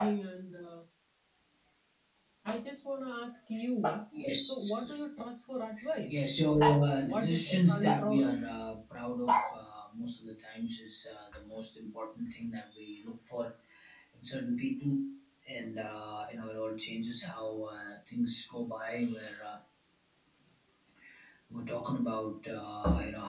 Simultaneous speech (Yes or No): Yes